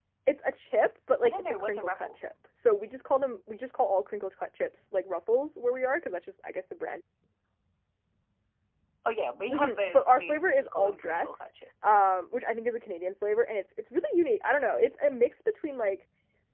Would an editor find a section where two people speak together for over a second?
Yes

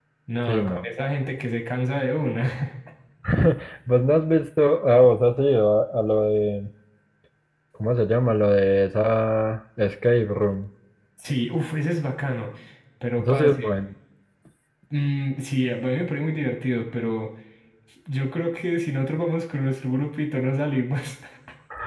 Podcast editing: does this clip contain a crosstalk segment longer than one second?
No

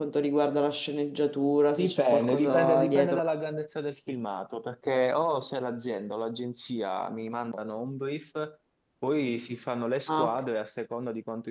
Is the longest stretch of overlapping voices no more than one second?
No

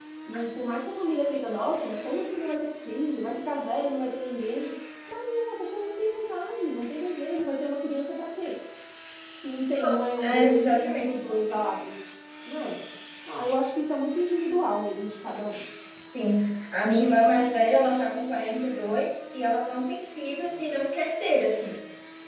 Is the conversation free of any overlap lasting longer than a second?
No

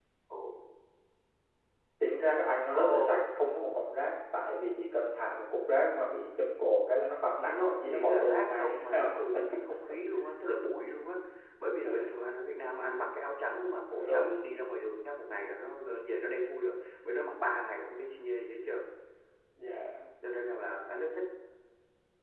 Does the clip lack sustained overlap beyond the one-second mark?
No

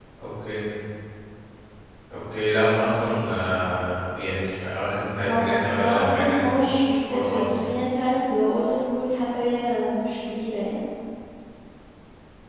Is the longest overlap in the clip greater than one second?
Yes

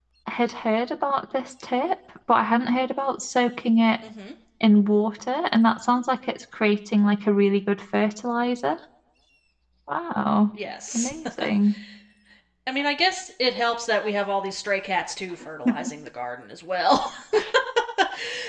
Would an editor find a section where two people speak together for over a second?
No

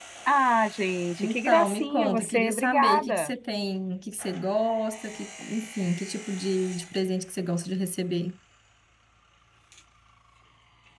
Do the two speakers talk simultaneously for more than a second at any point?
Yes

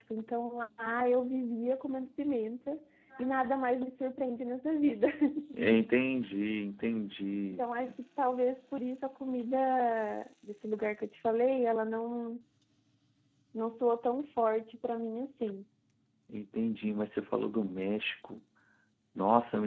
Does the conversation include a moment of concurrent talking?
No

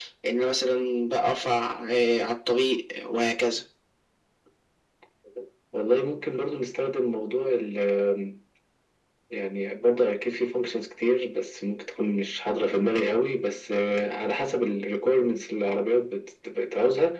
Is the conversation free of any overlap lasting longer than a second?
Yes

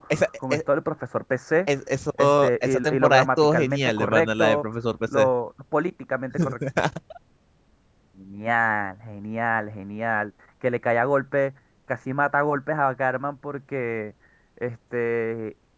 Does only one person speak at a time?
No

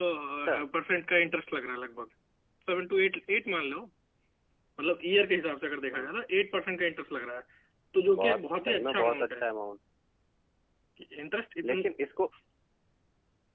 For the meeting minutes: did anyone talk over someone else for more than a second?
Yes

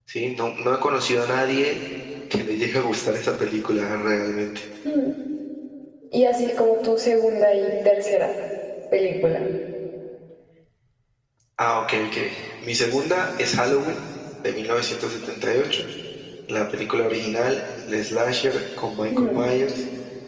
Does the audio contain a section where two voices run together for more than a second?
No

